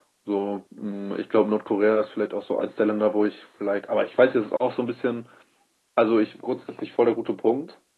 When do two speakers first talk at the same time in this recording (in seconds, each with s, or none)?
none